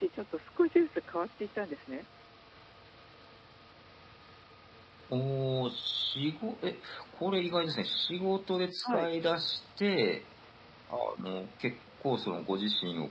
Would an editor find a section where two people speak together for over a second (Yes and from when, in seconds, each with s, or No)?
No